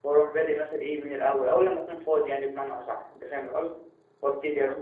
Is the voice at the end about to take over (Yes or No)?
No